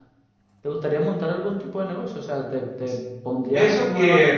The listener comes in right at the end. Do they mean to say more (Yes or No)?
Yes